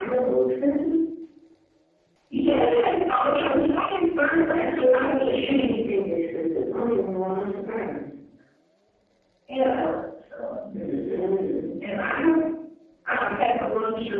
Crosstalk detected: Yes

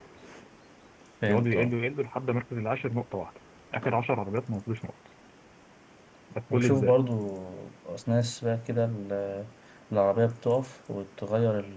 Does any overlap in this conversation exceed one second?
No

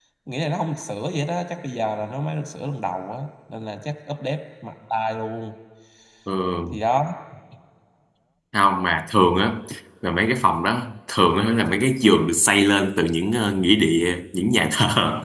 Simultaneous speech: No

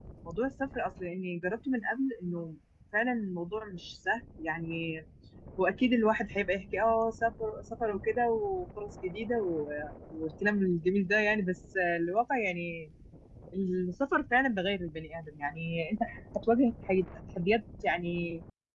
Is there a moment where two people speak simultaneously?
No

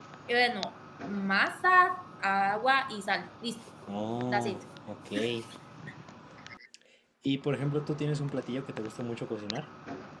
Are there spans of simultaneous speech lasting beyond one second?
No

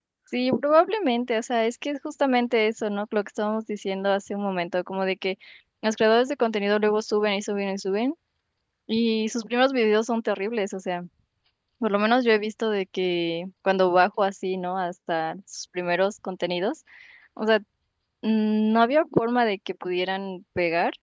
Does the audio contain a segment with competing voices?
No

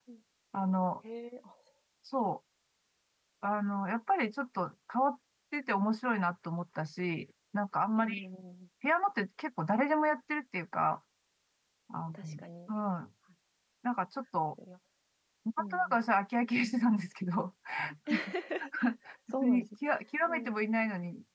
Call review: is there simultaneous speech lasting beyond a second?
No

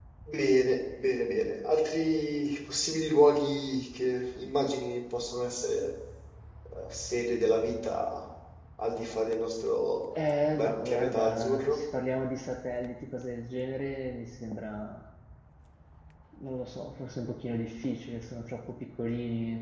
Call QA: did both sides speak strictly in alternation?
No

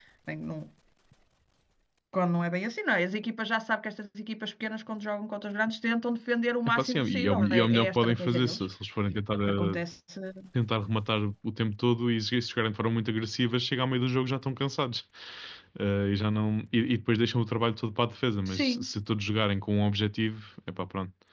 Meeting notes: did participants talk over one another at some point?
Yes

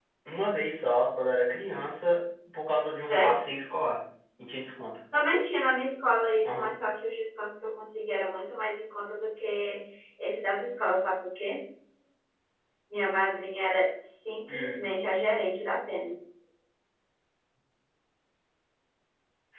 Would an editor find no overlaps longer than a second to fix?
Yes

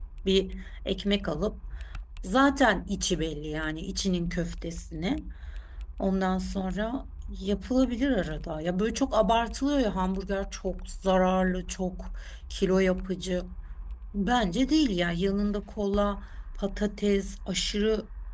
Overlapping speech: No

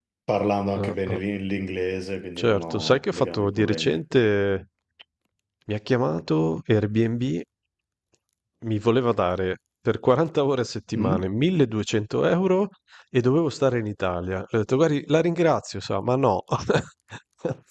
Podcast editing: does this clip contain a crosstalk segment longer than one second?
Yes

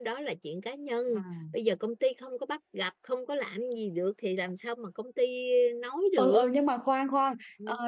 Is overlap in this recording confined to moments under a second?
Yes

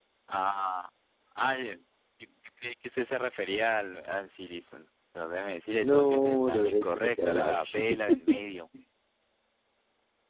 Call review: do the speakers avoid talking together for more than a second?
No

